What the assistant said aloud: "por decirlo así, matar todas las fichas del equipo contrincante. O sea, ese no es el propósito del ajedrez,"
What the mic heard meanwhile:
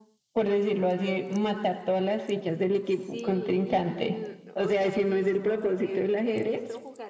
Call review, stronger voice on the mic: echo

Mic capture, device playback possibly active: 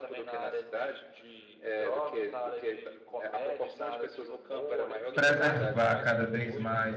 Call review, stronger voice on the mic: user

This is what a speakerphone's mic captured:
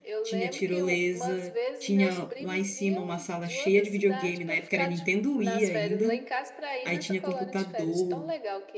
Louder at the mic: user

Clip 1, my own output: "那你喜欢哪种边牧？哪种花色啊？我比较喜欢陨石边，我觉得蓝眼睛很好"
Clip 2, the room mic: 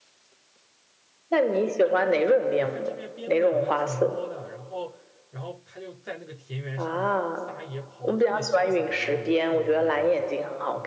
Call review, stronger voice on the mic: echo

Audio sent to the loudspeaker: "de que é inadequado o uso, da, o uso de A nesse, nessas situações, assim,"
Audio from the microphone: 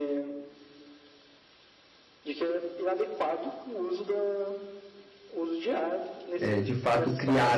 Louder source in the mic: user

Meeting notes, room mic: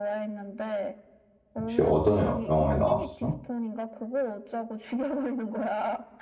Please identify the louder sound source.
user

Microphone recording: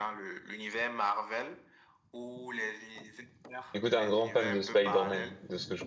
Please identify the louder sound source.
user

